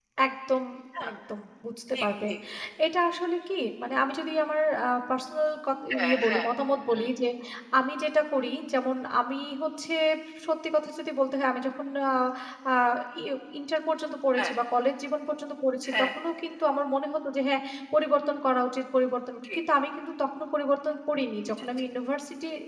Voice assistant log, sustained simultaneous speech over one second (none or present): none